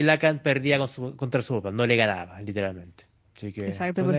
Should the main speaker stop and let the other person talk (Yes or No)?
Yes